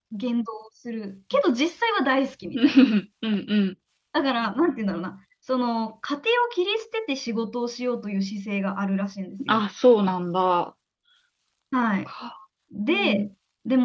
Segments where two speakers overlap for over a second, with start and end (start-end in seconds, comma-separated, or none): none